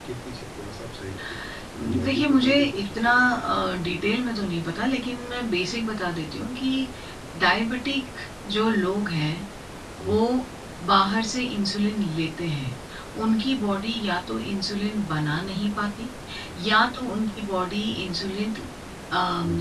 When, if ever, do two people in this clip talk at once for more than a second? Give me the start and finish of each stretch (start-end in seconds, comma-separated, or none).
1.9-3.3